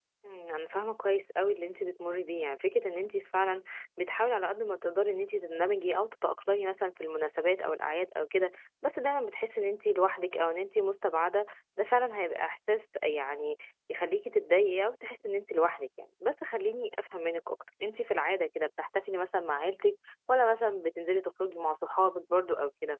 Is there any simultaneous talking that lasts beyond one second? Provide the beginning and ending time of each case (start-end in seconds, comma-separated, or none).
none